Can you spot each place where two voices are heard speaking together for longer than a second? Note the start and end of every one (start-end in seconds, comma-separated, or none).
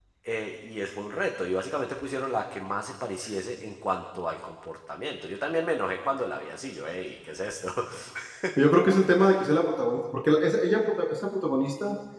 none